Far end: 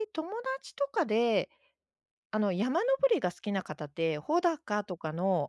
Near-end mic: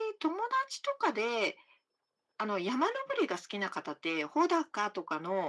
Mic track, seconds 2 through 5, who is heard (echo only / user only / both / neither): echo only